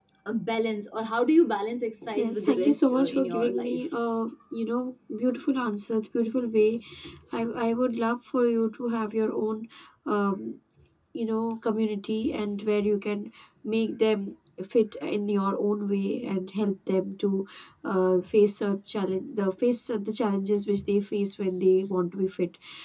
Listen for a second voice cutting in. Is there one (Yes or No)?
Yes